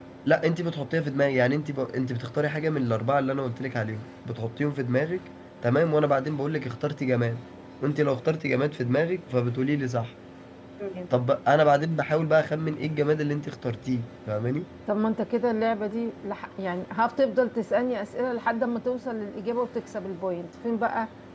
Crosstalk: none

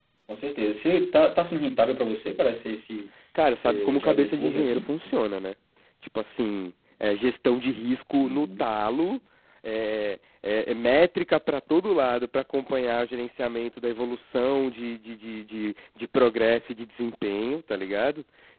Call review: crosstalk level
present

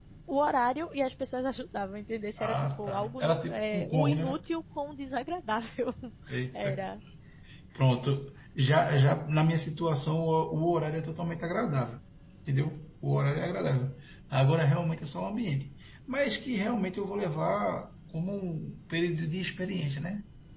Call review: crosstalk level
present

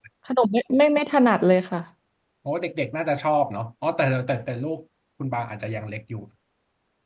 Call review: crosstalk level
none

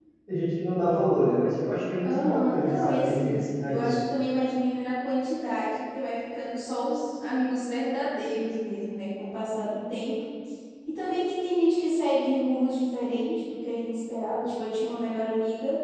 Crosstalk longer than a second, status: present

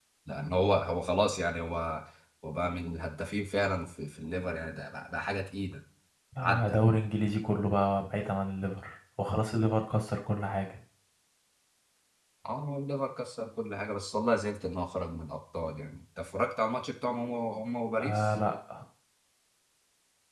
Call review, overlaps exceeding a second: none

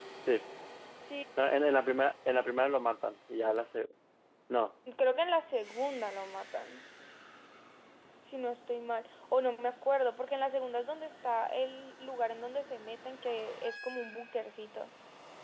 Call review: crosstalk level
none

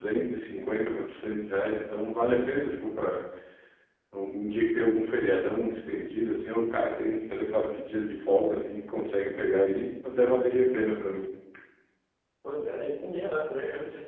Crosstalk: none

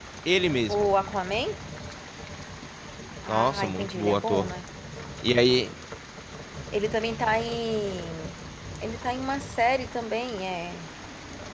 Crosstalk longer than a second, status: present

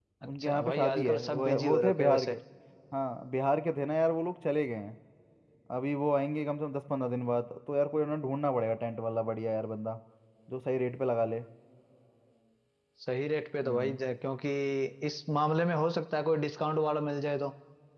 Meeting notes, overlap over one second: present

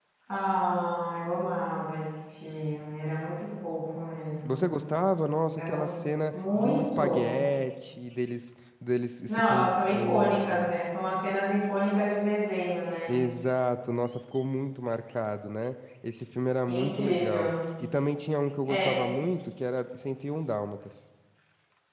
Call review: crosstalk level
present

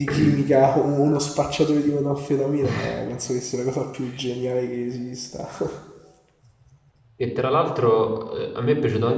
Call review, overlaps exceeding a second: none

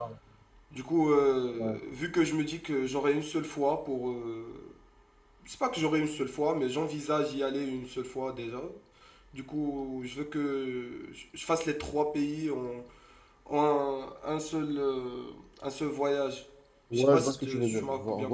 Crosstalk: present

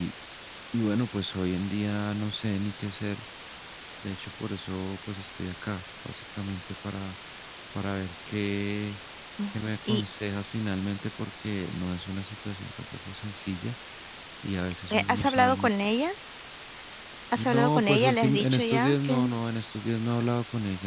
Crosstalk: present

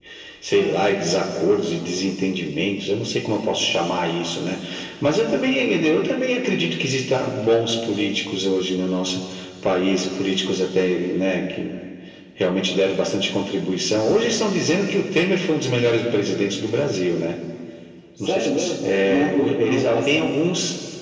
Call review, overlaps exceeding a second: present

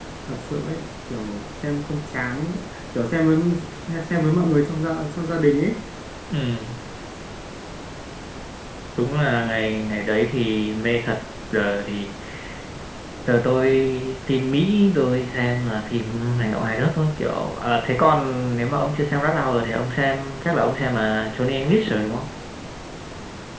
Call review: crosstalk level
none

